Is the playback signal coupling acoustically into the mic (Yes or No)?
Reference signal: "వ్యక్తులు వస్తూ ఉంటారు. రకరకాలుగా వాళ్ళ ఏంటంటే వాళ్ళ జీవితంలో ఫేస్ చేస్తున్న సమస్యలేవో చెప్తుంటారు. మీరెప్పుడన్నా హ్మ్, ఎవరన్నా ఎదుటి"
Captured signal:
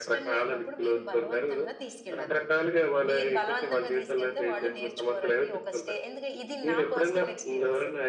Yes